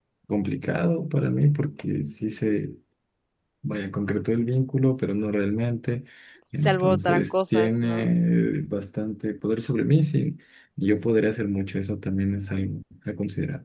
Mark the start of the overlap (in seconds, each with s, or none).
6.5 s